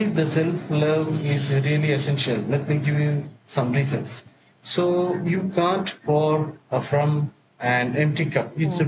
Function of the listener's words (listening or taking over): listening